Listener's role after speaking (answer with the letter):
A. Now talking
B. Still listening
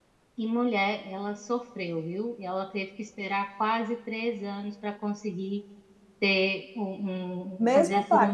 A